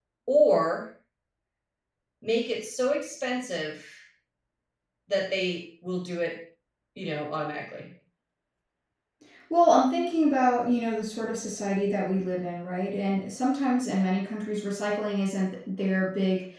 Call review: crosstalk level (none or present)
none